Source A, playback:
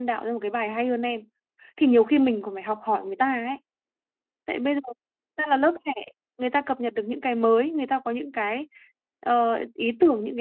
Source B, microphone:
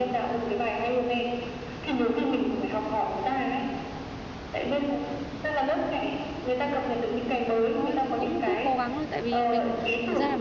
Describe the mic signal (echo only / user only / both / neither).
both